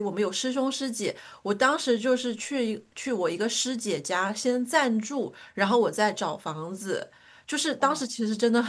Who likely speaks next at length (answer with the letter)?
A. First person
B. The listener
A